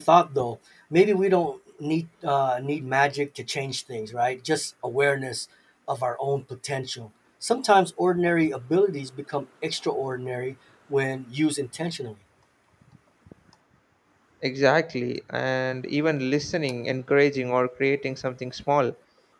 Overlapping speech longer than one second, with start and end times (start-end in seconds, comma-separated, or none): none